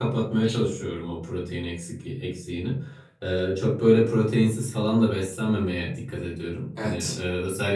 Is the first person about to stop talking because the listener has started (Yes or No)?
No